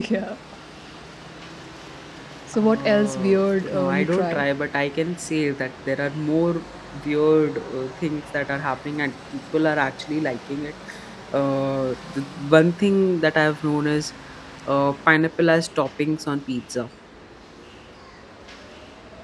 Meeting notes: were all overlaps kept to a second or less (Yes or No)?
No